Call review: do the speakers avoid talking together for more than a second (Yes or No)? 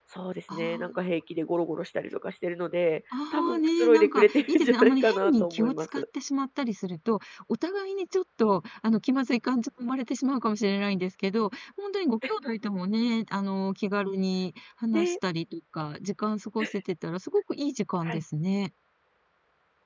No